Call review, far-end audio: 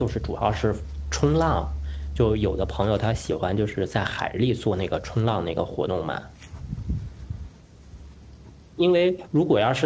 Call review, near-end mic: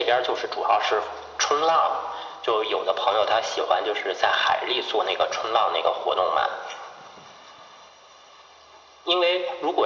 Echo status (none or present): present